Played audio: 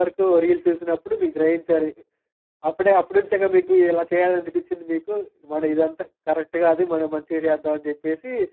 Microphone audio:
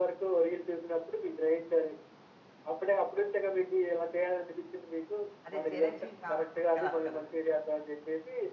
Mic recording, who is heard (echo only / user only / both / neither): both